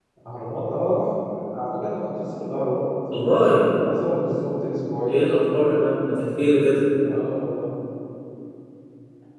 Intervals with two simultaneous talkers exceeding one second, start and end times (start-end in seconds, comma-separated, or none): none